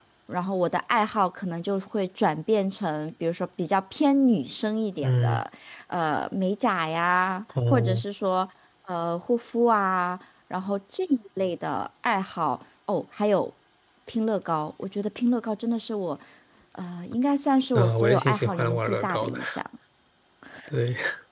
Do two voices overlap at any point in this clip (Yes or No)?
Yes